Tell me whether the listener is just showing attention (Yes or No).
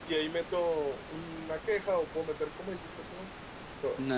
Yes